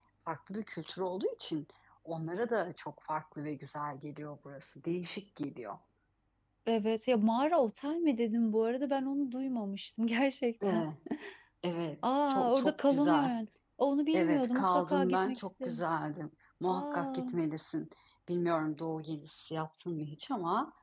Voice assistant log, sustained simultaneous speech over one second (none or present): present